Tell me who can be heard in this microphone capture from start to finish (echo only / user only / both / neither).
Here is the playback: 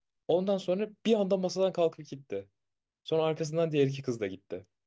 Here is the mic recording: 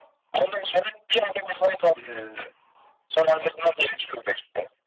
both